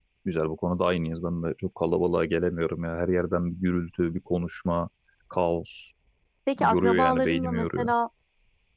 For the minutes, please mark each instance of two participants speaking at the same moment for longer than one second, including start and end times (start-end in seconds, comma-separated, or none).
6.6-7.9